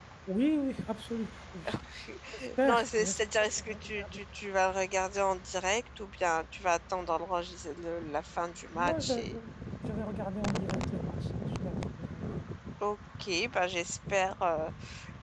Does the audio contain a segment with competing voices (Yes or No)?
Yes